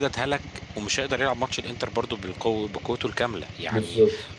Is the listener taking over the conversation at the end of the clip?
No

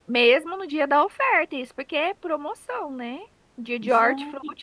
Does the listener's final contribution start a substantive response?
No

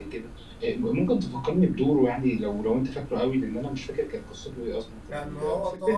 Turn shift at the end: Yes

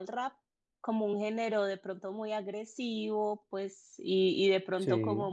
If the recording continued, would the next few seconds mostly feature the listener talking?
No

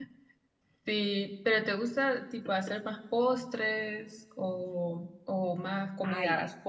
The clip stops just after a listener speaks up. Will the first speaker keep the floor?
No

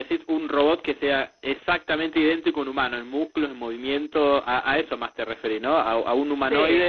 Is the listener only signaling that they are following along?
Yes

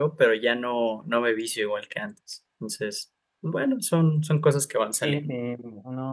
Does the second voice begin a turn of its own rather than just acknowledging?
Yes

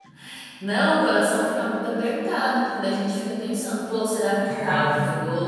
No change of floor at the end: Yes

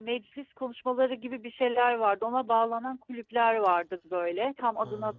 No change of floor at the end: Yes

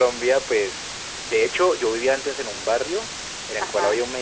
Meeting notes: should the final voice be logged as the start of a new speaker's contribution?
No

